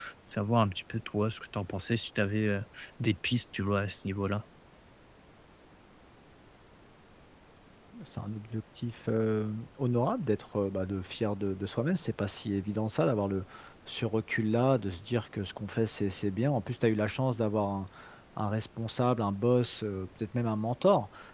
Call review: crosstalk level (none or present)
none